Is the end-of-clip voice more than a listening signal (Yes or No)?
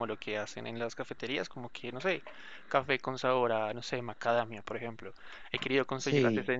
No